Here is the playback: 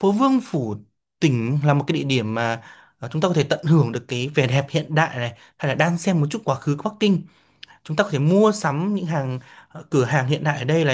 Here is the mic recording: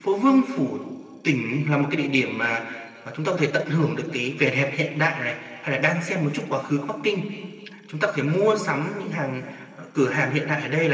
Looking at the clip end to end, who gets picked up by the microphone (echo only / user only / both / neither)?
echo only